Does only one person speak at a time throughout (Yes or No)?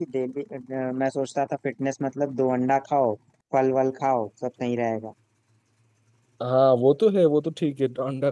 Yes